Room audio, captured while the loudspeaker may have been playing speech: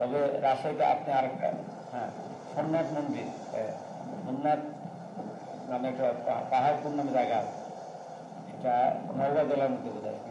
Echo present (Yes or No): Yes